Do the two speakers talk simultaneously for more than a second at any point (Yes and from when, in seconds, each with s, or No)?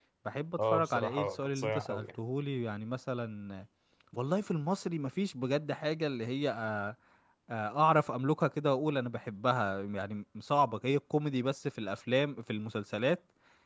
Yes, from 0.7 s